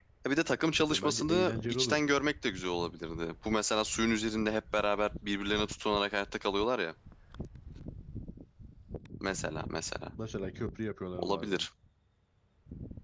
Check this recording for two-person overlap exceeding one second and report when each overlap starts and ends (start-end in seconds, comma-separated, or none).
0.9-2.1